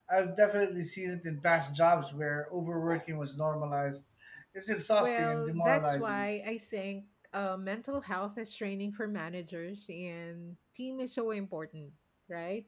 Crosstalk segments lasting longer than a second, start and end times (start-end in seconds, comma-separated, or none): 5.0-6.3